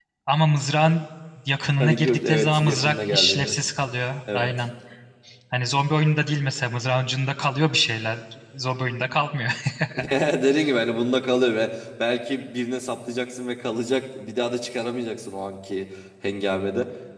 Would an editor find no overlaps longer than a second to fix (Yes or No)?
No